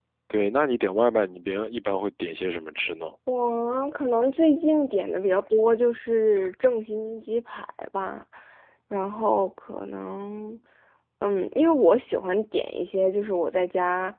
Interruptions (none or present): none